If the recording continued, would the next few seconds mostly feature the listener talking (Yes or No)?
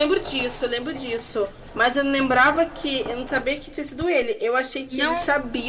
No